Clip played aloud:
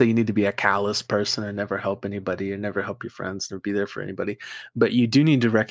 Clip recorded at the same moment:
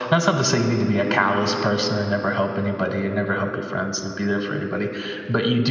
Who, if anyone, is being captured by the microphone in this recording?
echo only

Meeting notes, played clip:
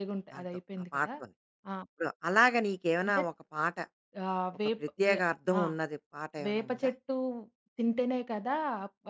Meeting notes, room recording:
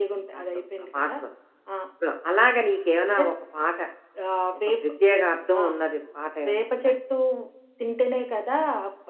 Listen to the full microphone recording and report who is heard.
echo only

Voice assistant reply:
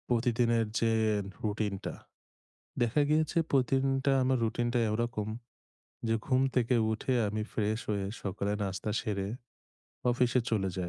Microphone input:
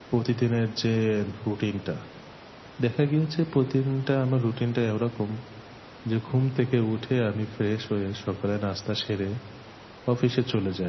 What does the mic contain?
echo only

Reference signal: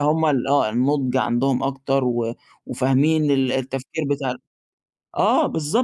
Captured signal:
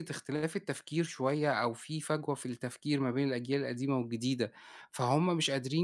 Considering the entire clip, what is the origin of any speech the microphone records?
user only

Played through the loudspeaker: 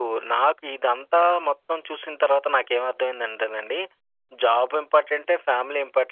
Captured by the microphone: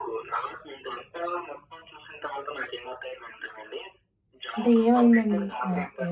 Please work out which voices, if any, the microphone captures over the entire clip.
both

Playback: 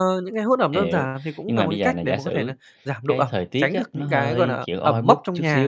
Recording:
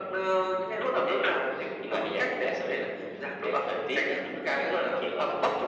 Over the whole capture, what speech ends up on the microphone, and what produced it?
echo only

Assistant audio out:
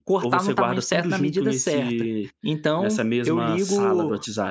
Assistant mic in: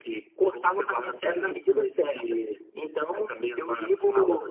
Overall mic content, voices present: echo only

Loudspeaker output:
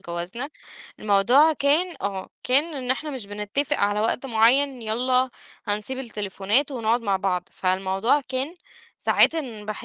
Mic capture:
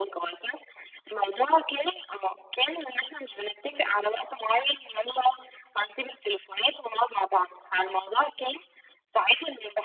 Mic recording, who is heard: echo only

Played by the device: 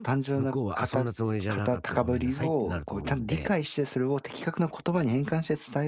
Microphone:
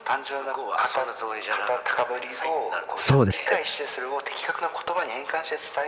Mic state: both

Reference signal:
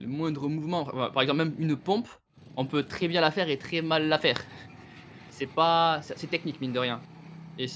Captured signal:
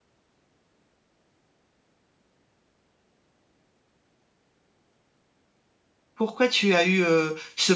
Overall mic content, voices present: user only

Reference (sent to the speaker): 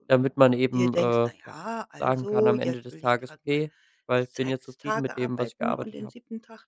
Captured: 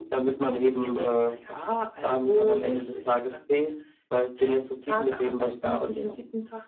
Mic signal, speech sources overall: echo only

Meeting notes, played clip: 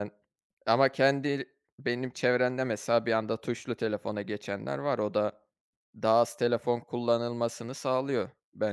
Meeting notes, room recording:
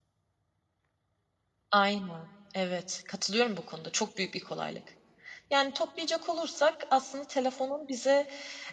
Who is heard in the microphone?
user only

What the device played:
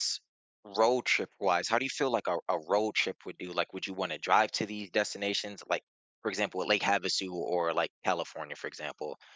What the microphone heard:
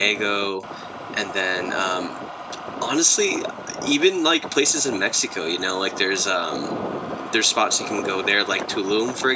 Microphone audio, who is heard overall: user only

